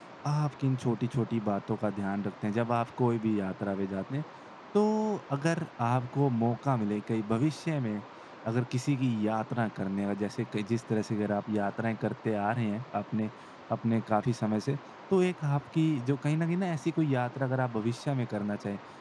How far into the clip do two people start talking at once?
none

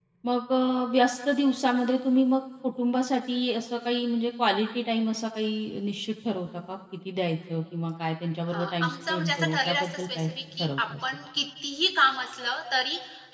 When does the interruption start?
8.5 s

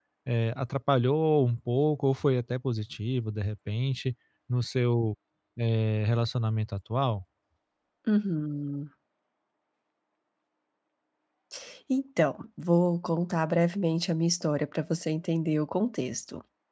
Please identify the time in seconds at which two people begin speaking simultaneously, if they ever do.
none

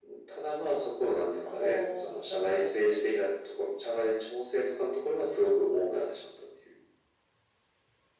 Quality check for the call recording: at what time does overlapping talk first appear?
1.5 s

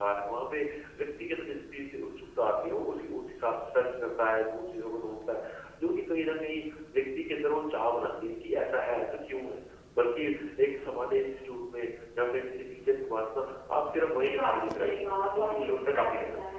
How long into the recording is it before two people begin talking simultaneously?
14.2 s

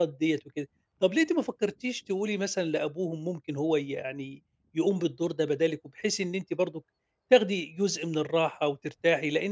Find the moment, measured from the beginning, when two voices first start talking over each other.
none

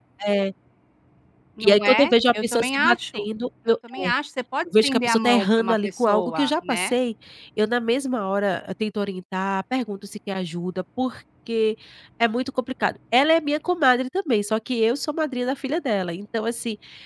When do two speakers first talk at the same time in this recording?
1.6 s

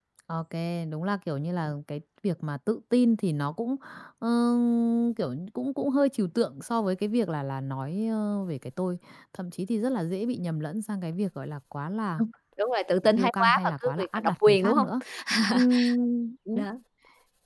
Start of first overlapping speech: 13.1 s

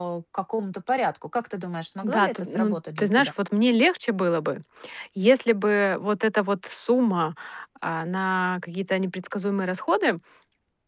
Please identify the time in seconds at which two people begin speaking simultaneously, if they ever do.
2.0 s

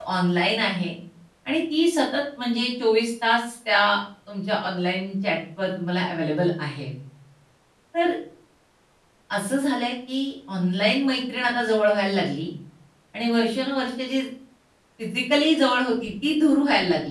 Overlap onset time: none

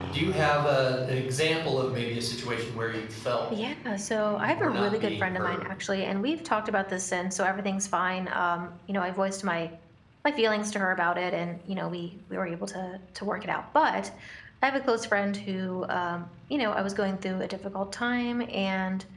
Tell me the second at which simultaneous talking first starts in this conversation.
4.3 s

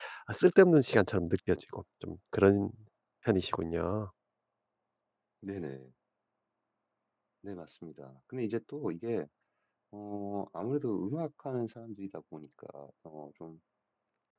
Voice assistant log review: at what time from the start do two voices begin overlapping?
none

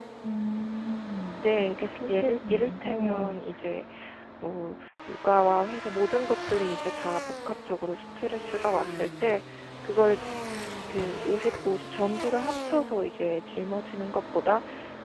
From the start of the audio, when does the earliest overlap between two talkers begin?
1.4 s

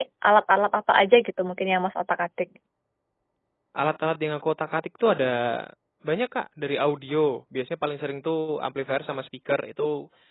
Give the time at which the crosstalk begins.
none

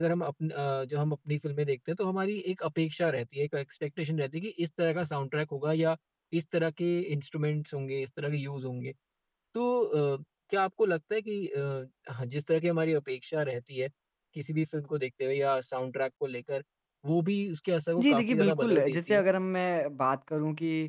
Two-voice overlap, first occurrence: 18.0 s

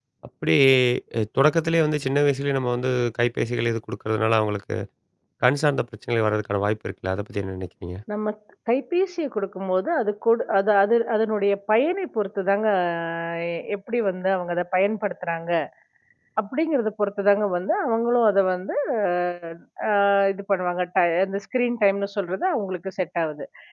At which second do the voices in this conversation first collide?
none

